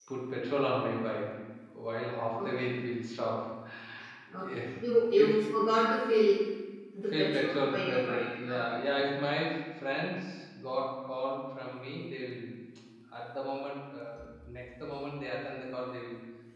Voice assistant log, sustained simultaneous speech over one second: present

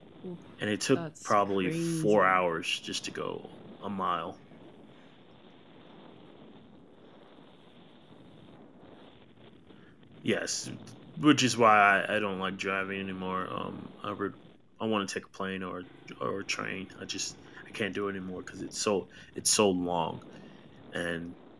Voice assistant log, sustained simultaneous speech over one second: present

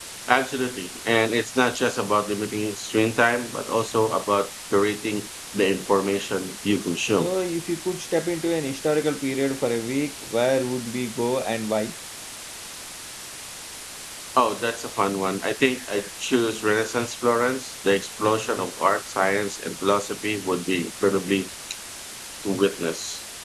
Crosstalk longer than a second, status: none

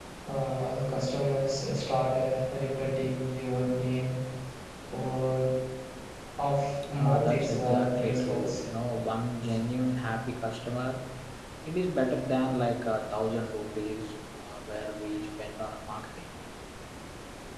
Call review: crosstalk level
present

